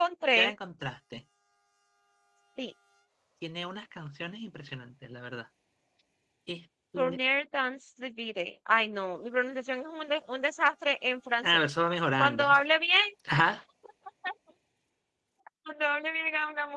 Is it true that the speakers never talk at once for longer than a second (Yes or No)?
Yes